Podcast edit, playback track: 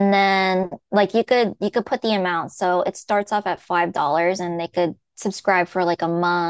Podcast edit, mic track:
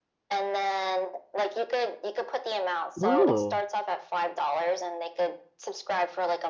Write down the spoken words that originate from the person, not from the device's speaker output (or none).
Oh,